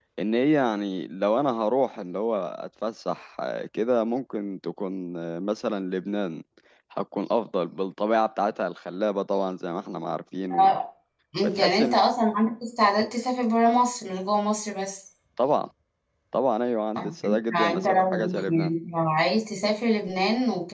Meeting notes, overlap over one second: present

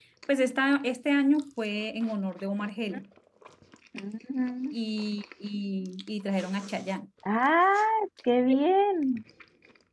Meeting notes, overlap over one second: none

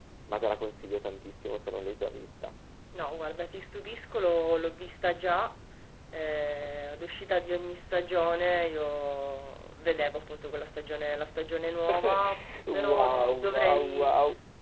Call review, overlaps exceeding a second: present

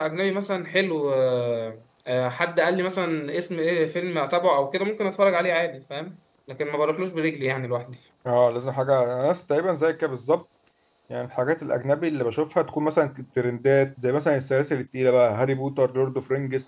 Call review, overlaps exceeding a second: none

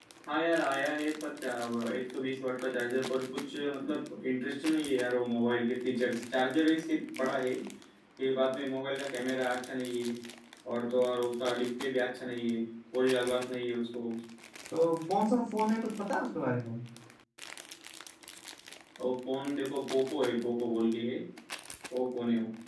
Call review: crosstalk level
none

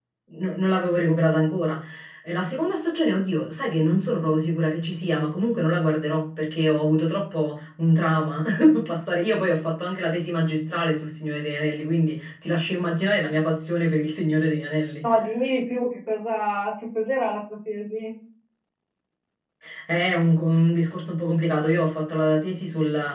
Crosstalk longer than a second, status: none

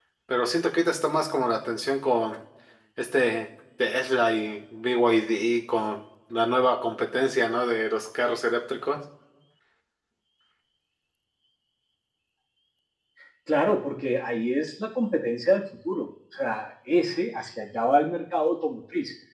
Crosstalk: none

